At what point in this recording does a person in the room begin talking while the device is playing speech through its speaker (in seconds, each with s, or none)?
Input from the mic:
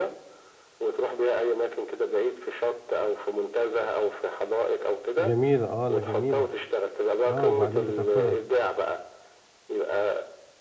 5.2 s